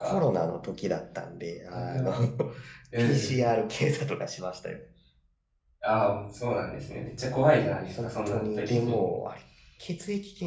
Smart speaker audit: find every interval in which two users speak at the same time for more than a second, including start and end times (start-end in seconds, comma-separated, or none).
7.4-9.0